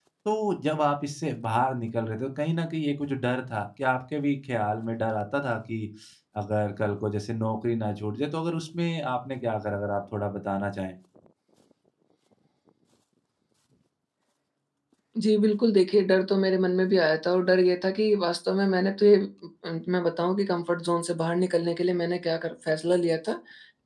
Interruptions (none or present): none